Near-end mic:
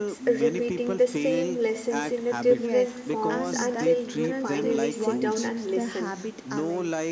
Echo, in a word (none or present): present